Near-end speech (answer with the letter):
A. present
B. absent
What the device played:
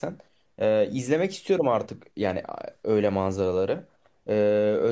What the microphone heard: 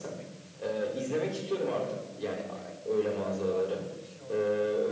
A